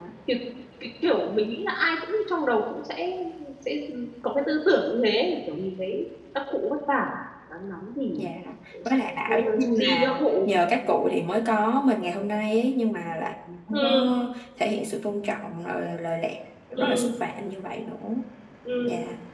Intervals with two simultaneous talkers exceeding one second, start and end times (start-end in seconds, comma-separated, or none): 9.3-10.5